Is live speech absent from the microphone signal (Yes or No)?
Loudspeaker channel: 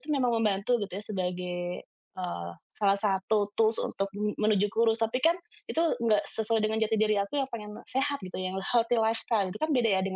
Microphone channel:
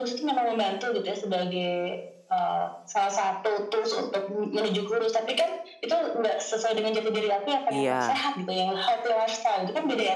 No